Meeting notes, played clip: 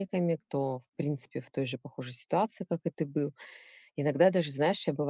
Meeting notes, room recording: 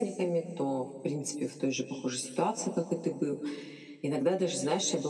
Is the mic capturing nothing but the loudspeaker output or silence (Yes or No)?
Yes